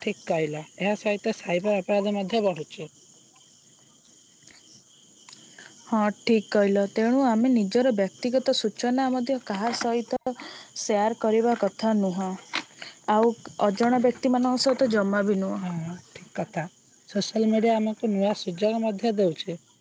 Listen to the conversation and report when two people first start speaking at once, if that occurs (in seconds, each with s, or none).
none